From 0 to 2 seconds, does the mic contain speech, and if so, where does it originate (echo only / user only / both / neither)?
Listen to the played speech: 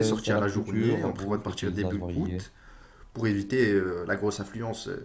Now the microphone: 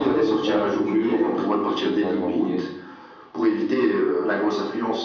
echo only